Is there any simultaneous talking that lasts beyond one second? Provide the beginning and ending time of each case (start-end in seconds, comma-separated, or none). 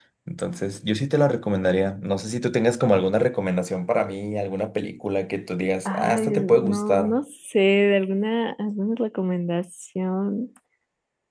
5.8-7.2